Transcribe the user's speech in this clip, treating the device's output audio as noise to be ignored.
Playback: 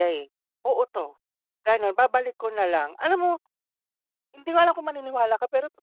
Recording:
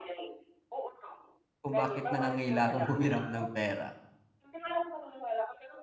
kung bakit nangangailangang humiram ng pera?

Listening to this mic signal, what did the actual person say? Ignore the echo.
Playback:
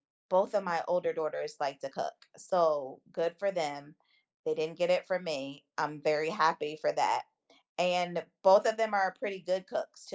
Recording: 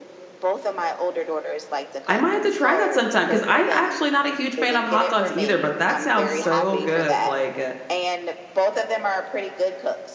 I might have to try that sometime, 'cause I actually not a huge fan of hot dogs either, but that sounds so good, like, uh,

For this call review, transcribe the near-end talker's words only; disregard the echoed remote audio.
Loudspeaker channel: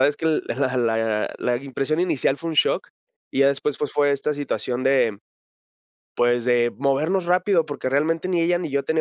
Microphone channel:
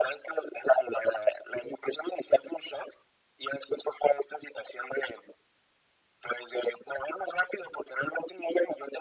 none

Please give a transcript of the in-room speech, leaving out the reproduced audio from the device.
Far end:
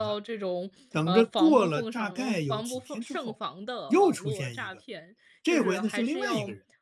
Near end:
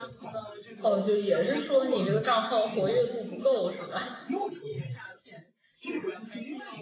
哦，就也是说，你这个账号活跃度不够，是吧？

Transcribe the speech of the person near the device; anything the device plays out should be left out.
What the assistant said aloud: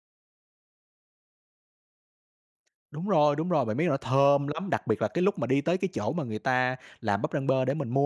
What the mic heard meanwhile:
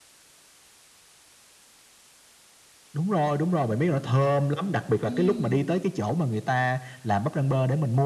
Ừm.

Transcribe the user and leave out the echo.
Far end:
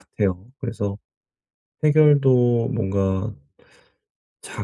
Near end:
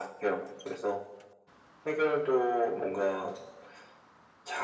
none

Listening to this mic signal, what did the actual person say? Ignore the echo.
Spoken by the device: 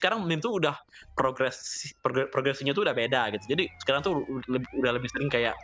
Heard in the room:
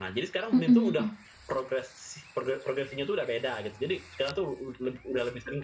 Mhm mhm.

